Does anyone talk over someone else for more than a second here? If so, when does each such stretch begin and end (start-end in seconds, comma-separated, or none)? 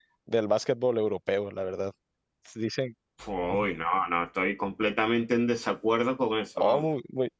none